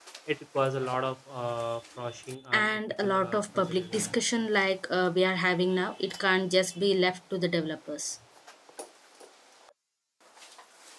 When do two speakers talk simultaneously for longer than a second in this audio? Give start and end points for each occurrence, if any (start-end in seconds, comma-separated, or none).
2.5-4.0